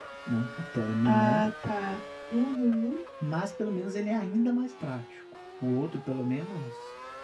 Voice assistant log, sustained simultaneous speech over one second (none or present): none